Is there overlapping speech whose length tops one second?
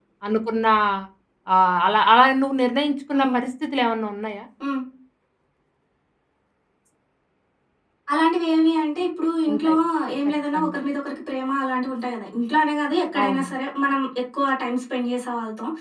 No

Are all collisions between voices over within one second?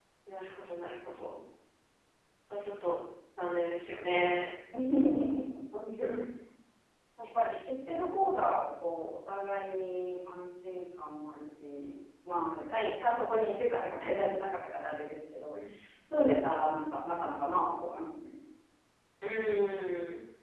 Yes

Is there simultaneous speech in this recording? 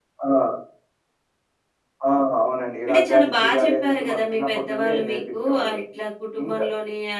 Yes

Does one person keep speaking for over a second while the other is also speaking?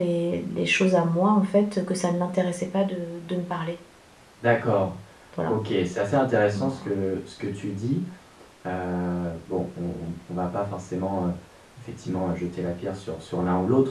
No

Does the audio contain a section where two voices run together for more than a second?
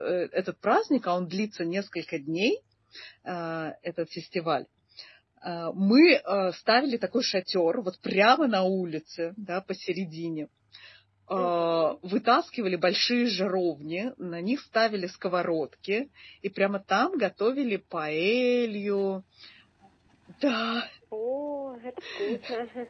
No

